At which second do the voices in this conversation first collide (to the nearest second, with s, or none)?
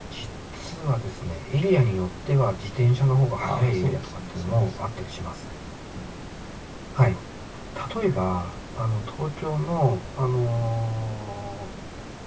3 s